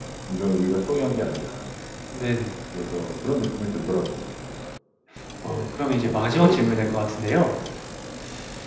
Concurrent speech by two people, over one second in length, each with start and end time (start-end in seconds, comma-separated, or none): 5.4-6.9